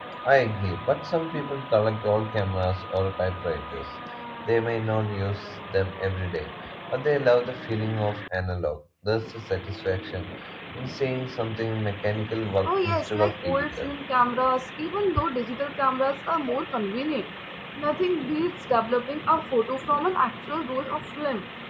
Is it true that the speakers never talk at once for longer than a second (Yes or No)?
No